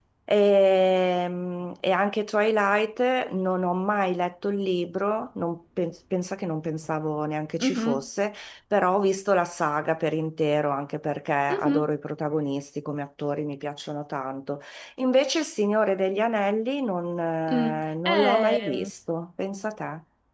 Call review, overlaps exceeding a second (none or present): present